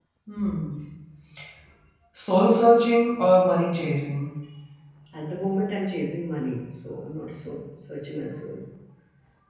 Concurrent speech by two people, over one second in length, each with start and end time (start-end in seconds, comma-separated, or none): none